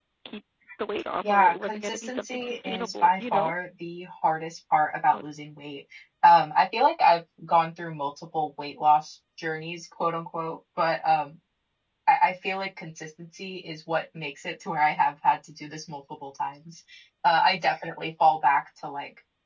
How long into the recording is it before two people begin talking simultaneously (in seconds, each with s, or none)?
1.3 s